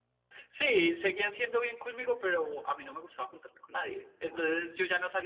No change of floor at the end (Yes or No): Yes